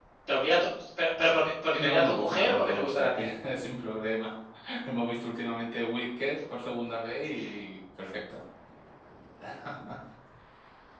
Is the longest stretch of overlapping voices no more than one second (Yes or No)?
No